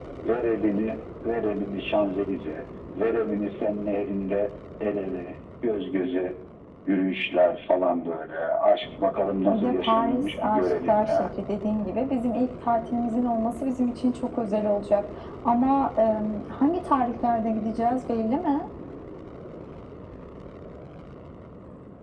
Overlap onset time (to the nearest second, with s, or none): 9 s